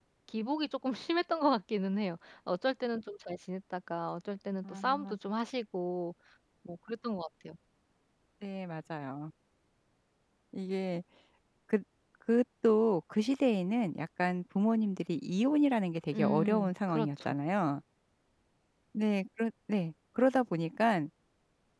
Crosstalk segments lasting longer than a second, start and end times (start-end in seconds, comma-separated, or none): 16.1-17.4